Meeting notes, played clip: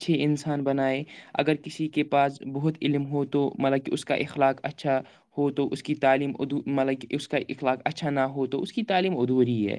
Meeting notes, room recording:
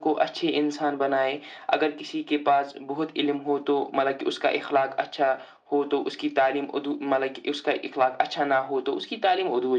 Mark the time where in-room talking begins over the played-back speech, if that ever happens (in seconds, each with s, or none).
none